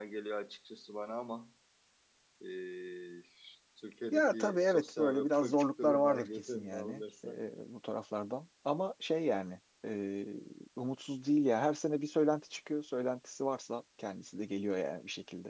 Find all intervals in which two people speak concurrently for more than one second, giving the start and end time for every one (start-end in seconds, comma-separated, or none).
4.1-7.4